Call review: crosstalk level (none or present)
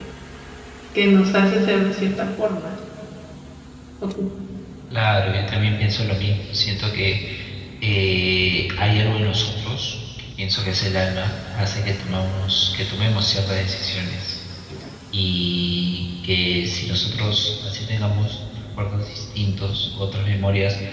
none